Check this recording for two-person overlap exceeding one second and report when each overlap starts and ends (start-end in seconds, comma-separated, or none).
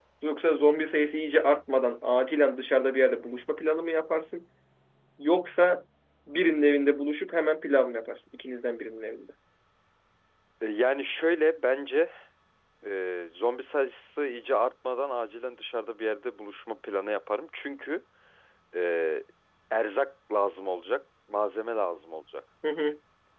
none